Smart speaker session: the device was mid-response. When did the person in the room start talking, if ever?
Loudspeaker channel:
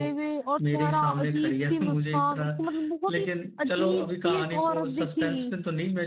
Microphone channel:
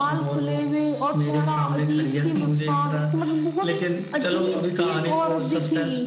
none

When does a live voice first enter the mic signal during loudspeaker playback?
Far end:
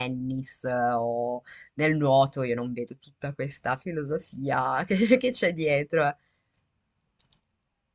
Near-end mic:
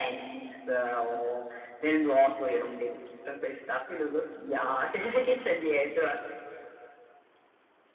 none

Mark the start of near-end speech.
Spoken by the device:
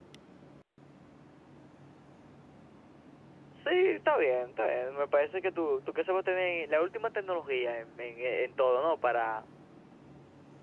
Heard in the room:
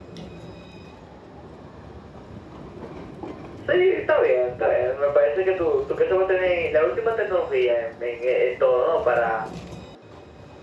none

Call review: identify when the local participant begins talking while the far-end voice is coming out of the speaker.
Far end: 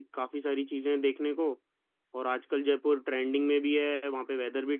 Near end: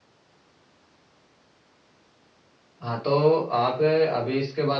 3 s

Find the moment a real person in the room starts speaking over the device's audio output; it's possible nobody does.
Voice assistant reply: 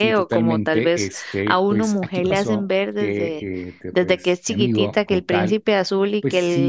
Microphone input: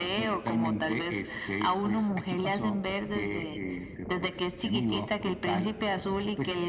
none

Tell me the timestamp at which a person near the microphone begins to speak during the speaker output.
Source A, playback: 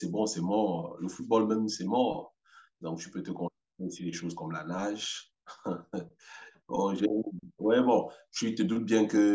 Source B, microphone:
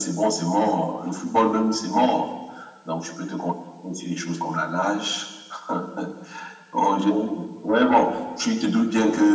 none

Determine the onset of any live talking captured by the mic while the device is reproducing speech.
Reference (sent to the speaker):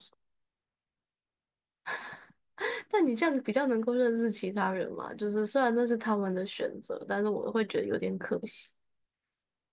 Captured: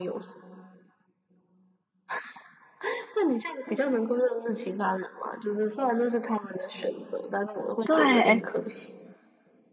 8 s

